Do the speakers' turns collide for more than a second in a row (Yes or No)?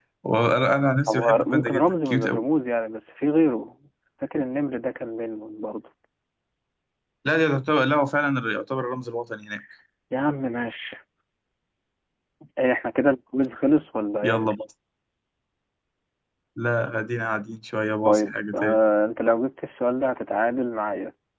Yes